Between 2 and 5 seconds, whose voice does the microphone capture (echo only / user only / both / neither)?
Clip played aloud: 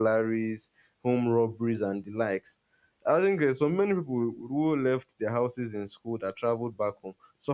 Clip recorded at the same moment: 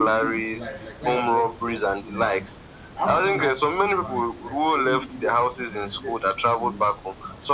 both